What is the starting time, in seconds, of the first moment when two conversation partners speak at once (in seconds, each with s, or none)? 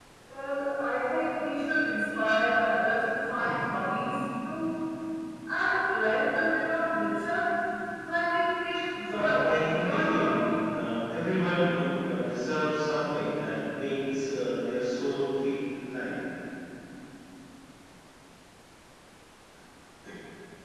9.1 s